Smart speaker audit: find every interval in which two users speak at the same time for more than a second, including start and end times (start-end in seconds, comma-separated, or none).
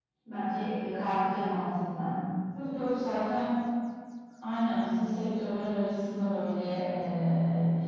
none